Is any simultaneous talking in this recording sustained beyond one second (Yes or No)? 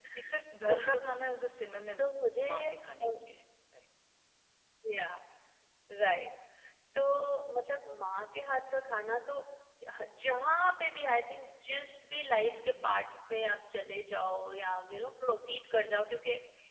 No